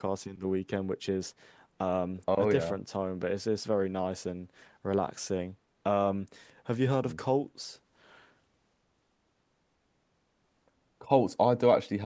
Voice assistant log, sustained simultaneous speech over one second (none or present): none